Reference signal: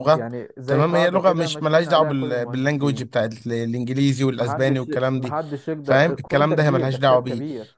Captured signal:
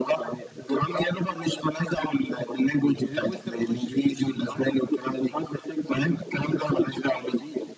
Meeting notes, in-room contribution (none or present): present